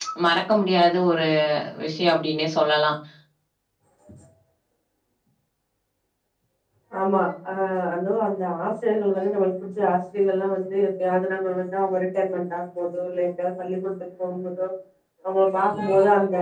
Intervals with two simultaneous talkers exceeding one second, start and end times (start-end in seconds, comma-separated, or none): none